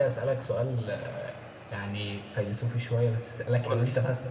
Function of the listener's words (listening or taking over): listening